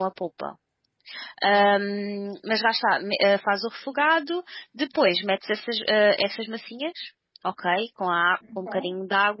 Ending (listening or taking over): listening